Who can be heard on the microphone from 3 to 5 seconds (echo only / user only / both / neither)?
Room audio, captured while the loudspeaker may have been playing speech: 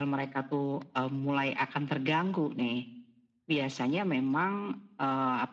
echo only